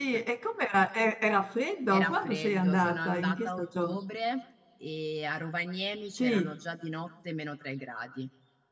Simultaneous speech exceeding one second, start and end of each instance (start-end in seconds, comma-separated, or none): 1.9-3.9